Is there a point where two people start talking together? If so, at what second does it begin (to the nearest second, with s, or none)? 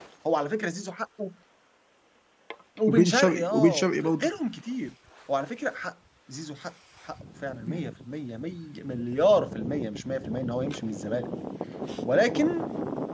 3 s